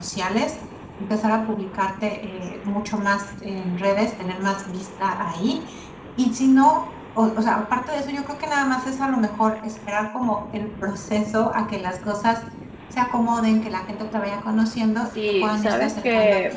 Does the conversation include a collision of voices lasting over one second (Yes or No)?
Yes